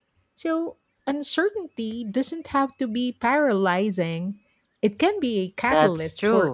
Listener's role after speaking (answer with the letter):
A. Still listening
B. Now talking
B